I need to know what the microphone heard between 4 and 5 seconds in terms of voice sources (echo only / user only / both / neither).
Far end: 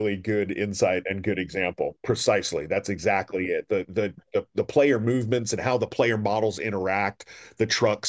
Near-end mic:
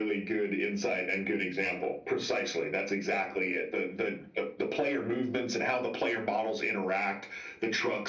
echo only